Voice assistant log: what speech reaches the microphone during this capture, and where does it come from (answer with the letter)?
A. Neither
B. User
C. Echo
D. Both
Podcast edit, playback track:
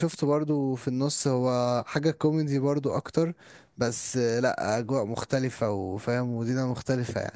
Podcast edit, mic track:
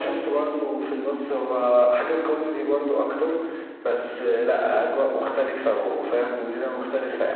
C